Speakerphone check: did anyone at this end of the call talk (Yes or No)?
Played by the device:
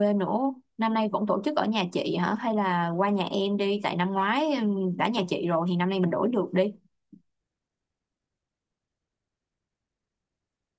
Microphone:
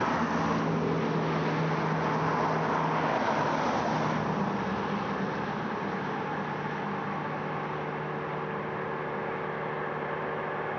No